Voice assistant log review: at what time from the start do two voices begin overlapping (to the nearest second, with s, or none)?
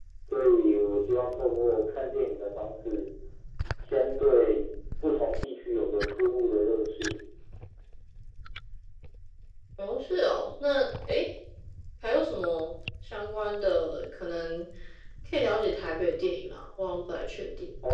none